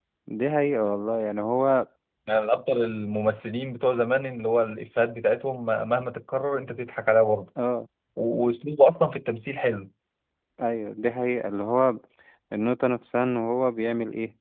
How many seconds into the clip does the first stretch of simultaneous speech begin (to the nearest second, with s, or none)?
none